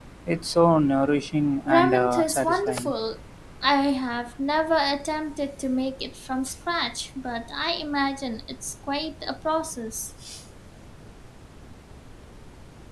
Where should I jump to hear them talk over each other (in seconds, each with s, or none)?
1.7 s